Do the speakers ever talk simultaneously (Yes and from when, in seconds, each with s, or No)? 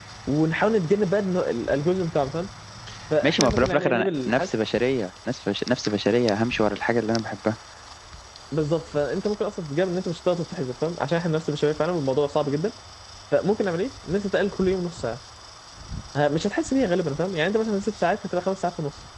Yes, from 3.2 s